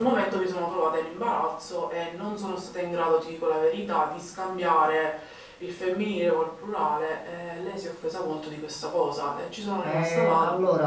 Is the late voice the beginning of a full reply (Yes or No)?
Yes